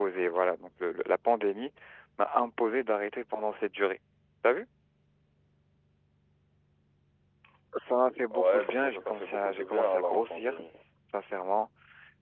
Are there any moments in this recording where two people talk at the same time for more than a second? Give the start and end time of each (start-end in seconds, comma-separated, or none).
8.3-10.6